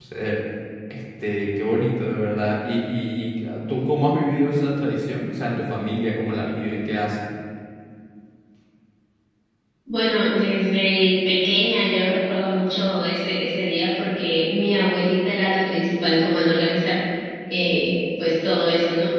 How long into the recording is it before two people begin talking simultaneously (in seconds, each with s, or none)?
none